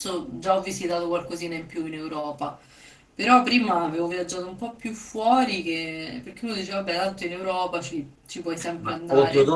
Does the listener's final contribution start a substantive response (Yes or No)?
Yes